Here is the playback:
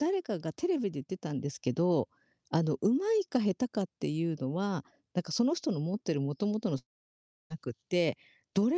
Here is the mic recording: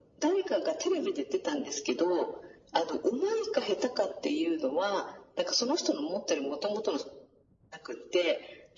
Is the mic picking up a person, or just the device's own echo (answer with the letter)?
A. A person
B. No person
B